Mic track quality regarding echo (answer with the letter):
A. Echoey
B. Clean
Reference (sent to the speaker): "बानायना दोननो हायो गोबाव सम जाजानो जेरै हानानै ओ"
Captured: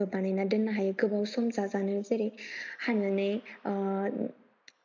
A